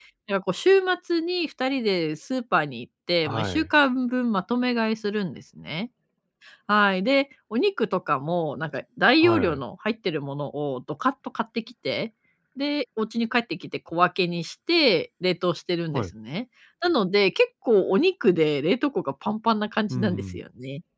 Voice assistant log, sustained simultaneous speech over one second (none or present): none